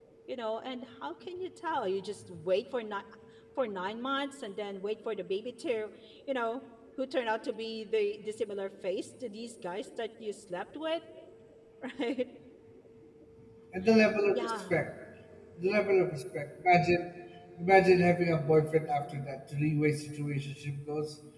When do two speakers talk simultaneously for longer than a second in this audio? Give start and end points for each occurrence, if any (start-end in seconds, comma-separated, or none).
none